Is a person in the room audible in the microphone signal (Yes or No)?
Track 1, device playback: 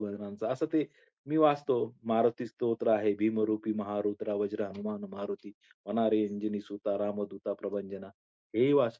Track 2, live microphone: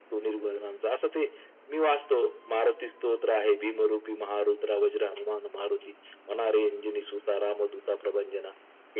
No